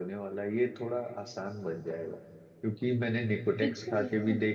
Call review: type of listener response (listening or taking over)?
listening